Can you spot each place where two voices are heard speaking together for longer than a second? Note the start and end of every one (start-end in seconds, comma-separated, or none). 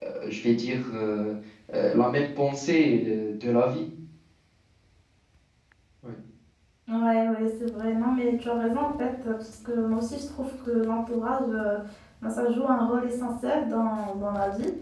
none